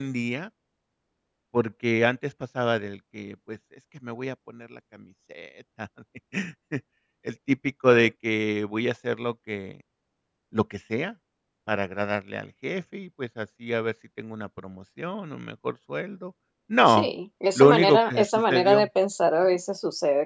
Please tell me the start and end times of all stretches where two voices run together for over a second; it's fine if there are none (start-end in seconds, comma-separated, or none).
17.6-18.9